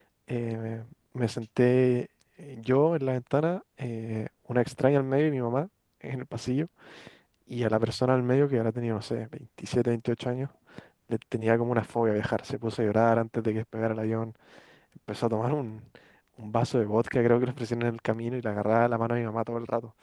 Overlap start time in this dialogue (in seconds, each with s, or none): none